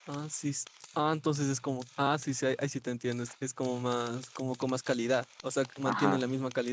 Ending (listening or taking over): listening